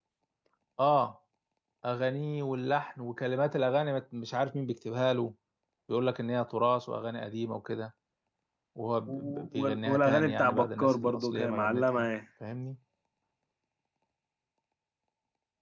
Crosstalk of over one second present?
Yes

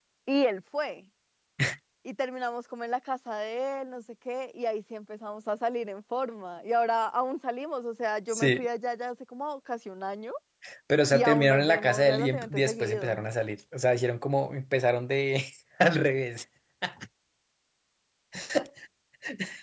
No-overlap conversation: No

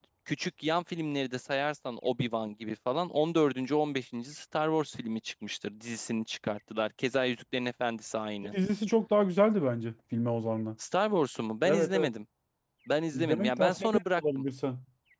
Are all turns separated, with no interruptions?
No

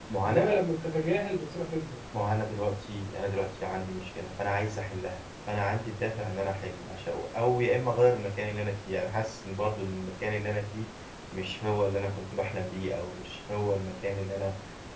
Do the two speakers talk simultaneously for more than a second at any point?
No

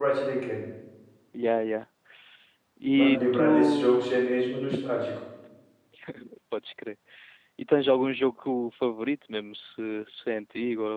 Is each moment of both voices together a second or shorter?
No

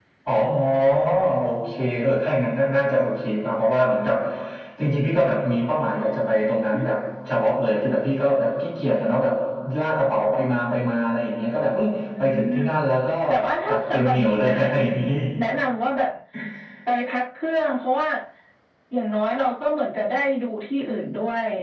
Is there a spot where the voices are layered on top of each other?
Yes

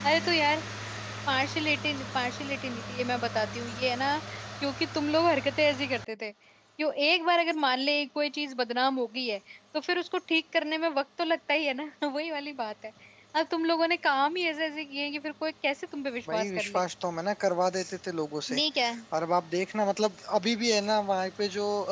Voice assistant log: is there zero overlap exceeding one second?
Yes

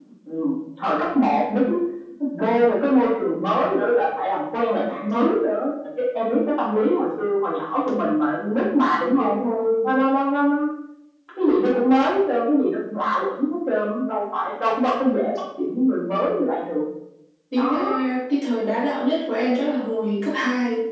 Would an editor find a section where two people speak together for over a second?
No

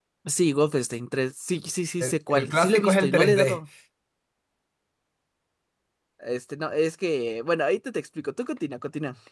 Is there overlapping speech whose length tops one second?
Yes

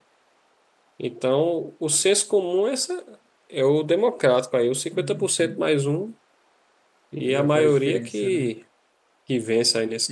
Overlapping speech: Yes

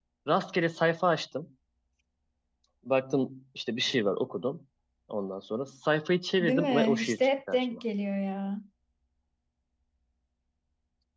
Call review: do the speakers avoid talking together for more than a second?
No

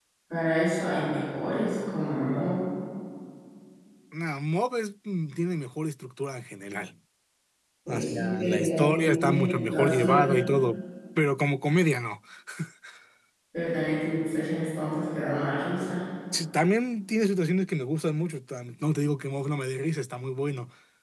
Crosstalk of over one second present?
Yes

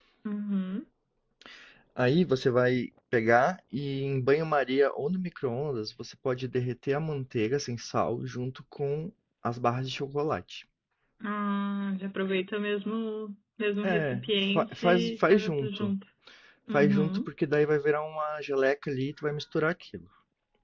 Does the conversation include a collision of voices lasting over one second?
Yes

